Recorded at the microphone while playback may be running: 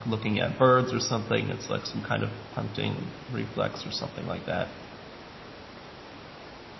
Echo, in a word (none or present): none